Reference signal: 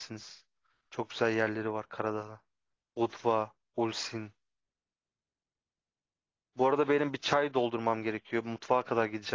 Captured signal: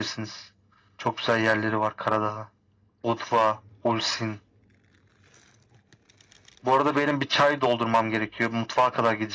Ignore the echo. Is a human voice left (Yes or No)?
No